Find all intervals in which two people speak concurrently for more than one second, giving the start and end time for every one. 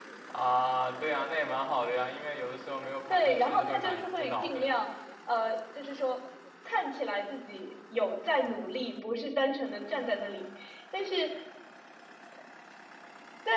3.1-4.6

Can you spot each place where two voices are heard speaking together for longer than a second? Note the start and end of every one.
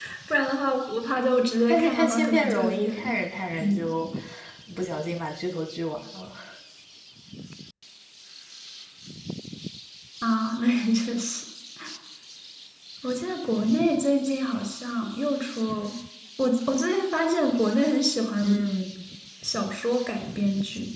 1.7-3.0

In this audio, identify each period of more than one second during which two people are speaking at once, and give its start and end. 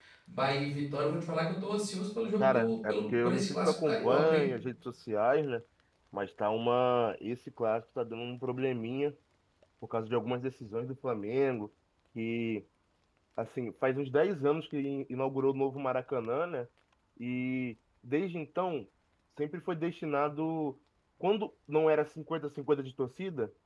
2.4-4.4

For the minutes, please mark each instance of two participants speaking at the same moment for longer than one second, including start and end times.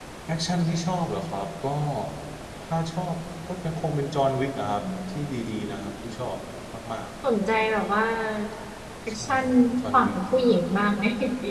none

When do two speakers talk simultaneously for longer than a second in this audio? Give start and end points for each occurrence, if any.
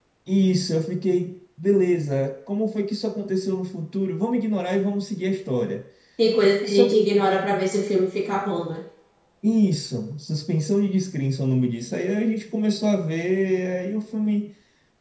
none

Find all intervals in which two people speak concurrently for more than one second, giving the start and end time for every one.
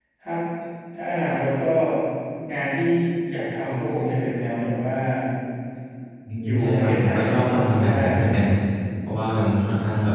6.4-8.4

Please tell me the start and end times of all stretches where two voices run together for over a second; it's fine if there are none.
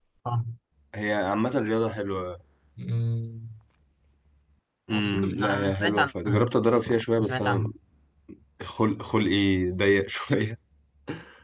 4.9-6.5

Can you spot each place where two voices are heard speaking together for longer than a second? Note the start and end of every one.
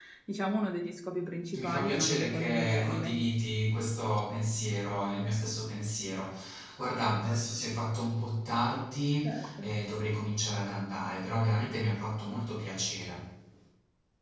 1.6-3.1

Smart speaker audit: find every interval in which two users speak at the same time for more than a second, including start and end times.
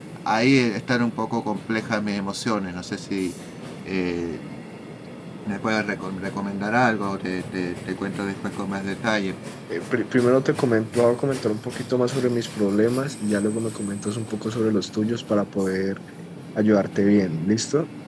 none

